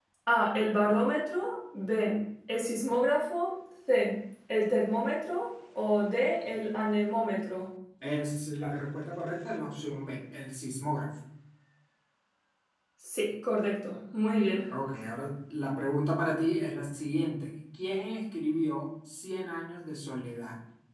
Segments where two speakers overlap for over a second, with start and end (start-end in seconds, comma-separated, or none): none